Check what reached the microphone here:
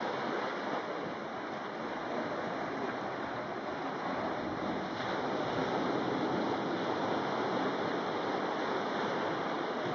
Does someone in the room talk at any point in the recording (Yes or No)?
No